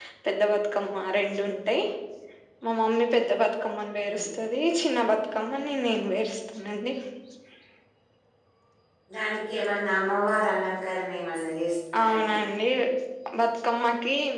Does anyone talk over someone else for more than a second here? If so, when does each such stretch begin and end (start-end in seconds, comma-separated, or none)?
none